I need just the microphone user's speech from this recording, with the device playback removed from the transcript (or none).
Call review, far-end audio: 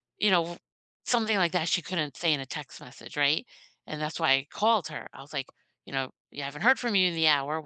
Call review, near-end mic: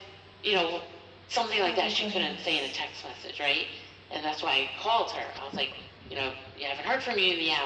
Oh, goodness.